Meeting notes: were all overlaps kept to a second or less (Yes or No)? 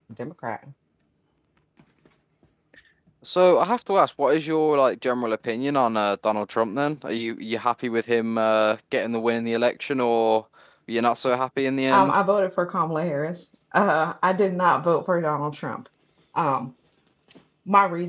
Yes